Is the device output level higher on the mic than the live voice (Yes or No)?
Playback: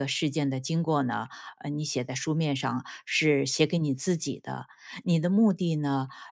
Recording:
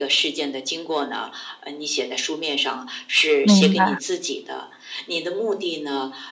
No